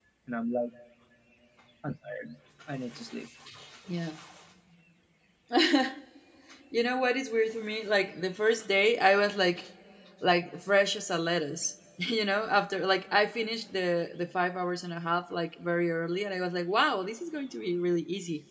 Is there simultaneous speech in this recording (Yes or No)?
No